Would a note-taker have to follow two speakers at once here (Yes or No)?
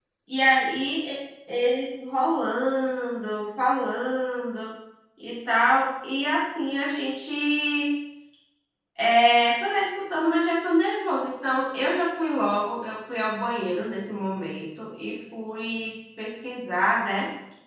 No